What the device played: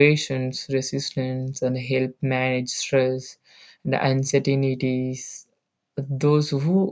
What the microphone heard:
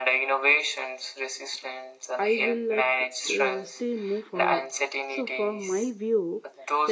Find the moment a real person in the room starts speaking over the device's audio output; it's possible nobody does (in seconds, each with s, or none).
2.2 s